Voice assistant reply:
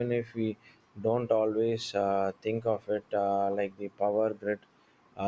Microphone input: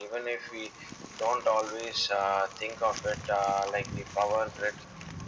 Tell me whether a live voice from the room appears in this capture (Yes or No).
No